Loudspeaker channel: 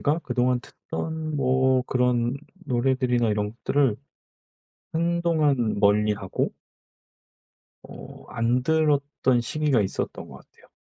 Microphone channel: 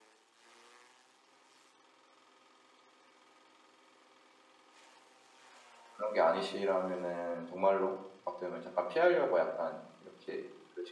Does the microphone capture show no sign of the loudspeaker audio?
Yes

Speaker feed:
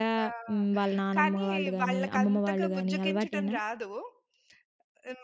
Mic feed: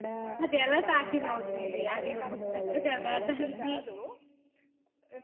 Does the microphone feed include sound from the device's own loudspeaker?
Yes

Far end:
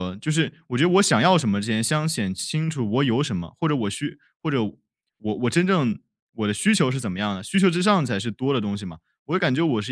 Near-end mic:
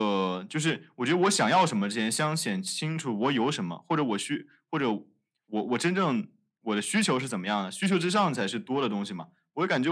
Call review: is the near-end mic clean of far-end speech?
No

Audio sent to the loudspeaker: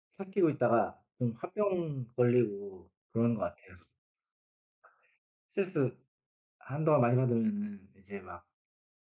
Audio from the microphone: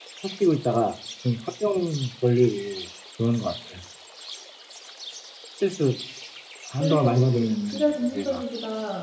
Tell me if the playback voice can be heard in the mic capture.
Yes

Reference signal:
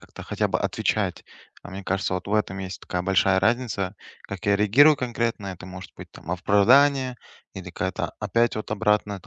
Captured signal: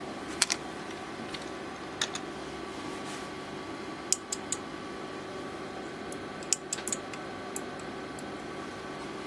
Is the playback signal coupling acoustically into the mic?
No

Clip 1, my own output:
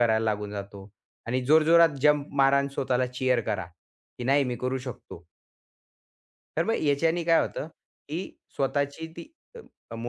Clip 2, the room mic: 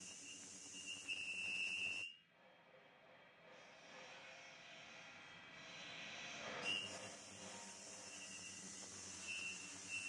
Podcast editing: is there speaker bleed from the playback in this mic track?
No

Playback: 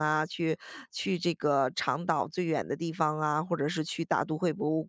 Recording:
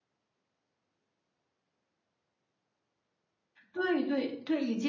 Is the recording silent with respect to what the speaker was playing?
Yes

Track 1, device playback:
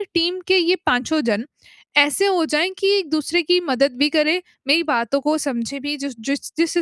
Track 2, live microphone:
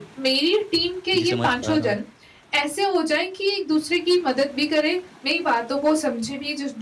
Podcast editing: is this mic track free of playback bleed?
No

